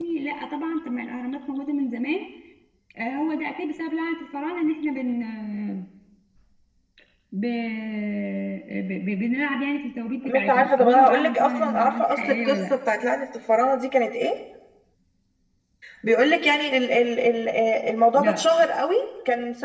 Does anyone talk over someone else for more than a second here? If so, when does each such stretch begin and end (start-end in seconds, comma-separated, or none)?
10.3-12.6